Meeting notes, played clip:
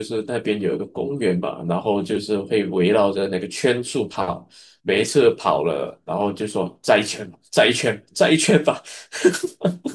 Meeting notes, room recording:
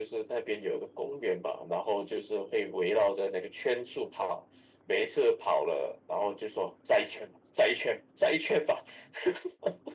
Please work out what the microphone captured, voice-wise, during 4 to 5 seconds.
echo only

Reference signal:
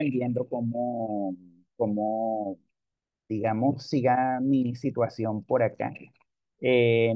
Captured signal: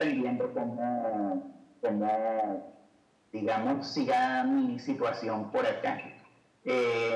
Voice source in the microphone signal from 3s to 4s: echo only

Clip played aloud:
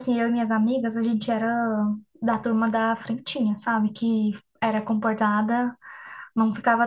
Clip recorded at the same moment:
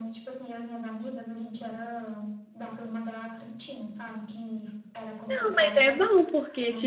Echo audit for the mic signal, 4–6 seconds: both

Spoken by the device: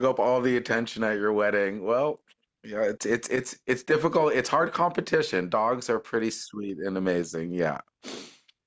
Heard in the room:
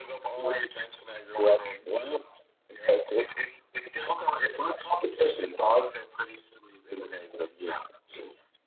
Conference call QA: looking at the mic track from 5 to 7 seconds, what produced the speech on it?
echo only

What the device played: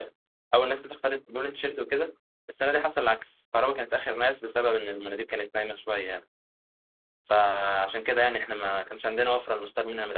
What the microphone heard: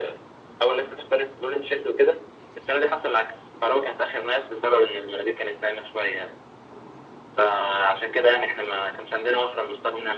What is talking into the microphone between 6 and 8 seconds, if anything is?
echo only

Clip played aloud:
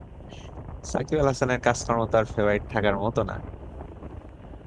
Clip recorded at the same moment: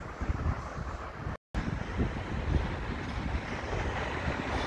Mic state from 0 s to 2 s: neither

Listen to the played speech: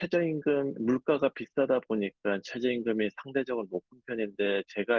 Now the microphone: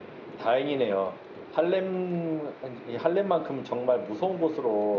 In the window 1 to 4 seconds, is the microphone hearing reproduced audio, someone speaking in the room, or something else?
user only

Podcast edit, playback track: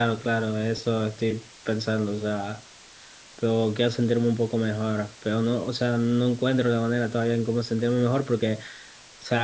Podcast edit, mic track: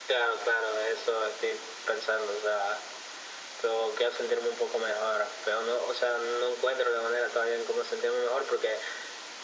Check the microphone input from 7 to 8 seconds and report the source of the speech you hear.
echo only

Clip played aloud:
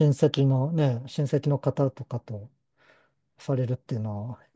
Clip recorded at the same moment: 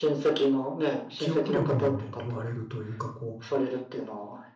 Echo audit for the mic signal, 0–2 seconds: both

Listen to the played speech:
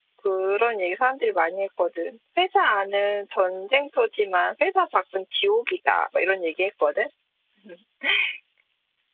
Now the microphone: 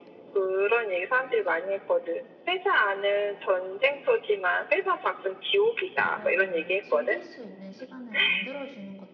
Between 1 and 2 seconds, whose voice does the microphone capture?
echo only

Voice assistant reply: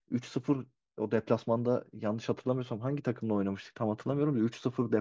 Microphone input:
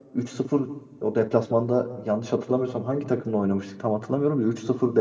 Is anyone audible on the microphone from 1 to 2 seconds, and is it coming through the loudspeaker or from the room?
echo only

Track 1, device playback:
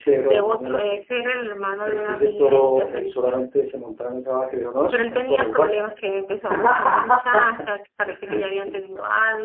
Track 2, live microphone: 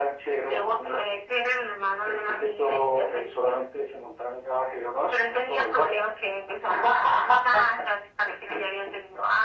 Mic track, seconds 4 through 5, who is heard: echo only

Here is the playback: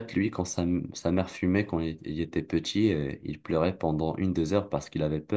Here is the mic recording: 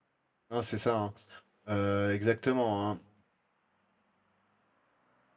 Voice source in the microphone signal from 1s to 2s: user only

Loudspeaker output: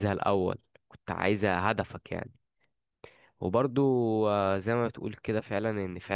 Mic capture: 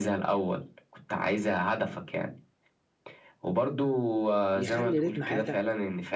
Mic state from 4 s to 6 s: both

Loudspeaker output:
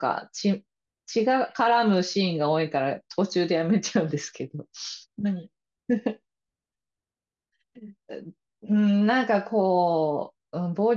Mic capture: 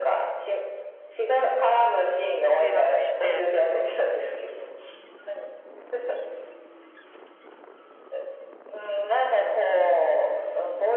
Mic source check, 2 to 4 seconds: both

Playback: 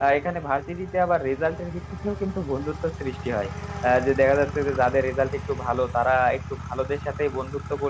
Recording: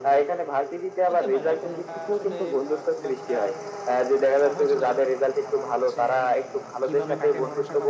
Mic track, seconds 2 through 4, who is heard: both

